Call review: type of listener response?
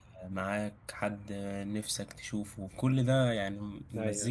listening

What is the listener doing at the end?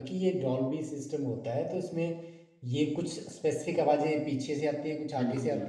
listening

